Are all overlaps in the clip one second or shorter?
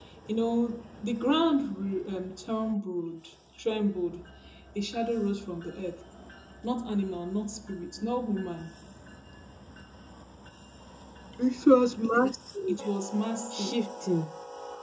Yes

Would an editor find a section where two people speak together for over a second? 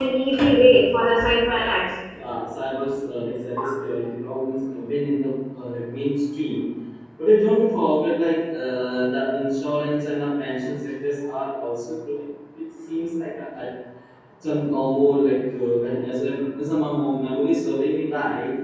No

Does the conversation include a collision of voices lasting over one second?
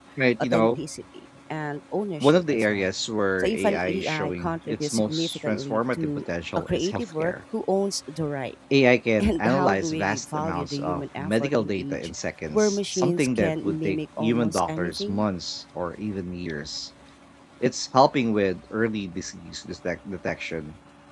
Yes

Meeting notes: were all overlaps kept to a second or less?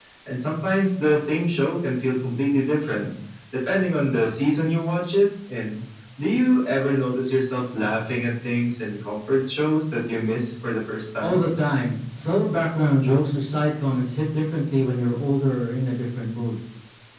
Yes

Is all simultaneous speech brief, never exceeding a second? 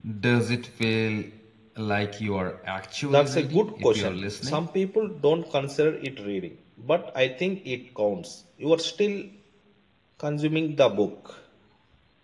No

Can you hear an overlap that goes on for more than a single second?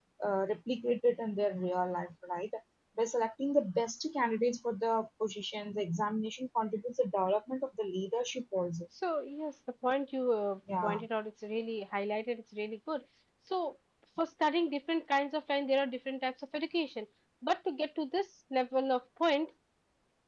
No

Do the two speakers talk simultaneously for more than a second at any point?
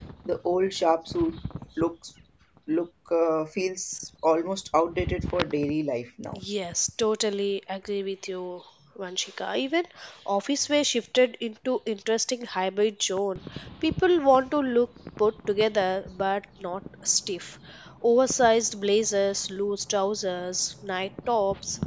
No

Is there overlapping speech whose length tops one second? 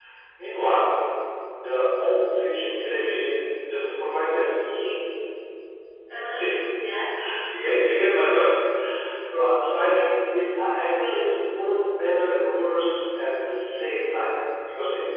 Yes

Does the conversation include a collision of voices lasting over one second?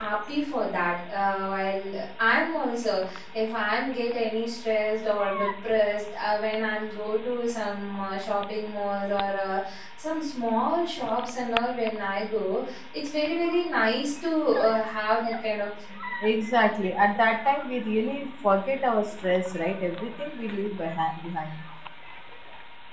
No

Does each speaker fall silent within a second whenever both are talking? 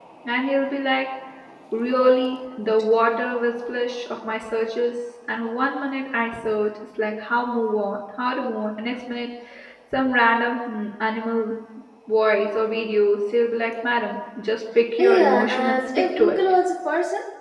No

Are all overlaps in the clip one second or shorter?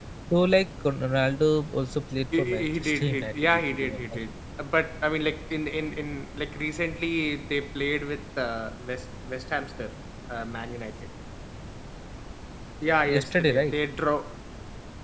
No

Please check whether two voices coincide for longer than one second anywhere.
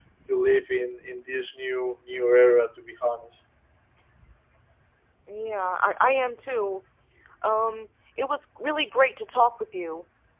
No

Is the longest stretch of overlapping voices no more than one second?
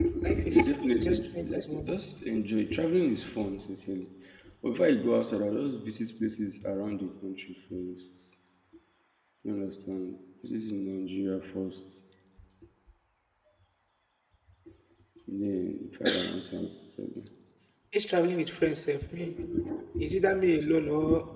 No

